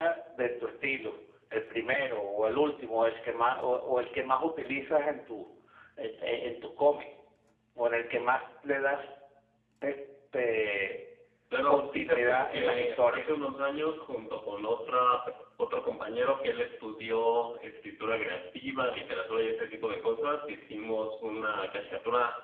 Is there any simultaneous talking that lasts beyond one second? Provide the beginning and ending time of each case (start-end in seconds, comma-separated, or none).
11.7-13.3